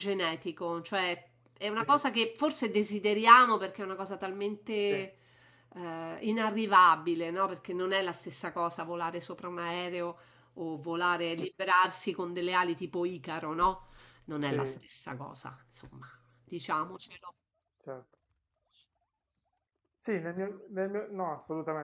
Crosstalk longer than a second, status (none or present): none